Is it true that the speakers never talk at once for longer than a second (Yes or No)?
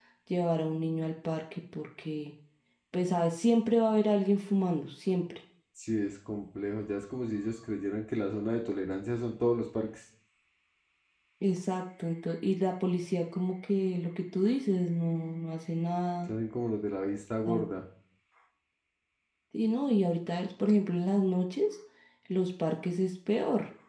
Yes